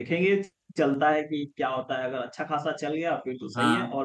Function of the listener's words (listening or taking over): listening